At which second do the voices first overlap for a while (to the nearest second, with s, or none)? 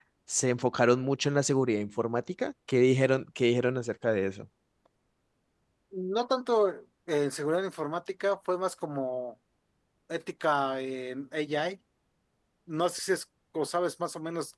none